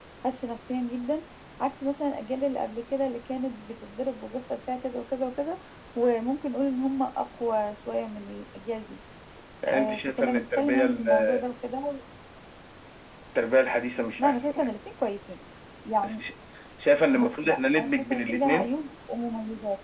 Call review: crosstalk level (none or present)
present